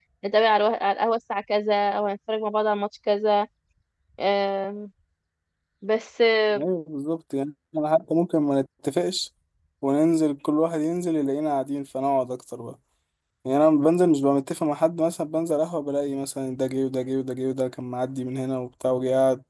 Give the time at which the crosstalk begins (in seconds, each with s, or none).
none